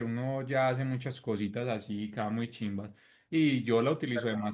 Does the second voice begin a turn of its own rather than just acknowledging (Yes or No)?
No